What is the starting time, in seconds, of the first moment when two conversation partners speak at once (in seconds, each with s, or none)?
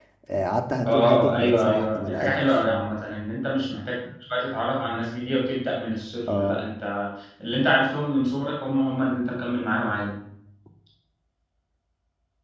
0.8 s